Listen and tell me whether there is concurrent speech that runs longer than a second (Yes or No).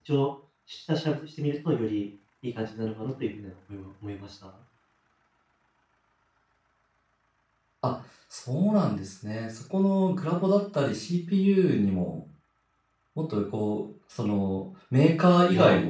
No